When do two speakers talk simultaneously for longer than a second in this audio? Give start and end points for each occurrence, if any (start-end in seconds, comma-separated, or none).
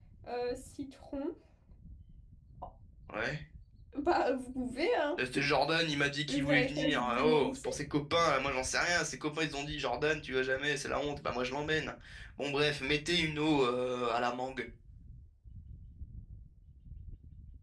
6.3-7.7